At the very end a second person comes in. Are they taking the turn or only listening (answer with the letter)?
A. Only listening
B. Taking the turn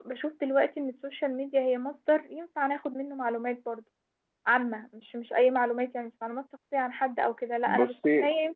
A